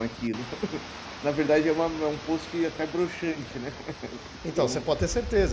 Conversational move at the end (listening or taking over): taking over